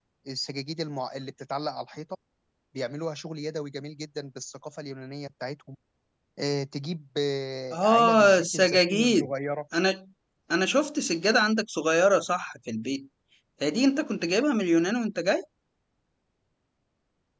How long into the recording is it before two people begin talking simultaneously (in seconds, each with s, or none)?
7.7 s